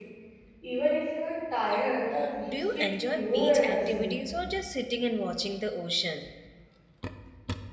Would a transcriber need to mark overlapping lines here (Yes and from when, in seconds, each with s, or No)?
Yes, from 2.4 s